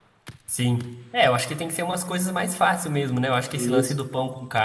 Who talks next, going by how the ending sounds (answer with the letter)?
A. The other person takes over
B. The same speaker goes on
B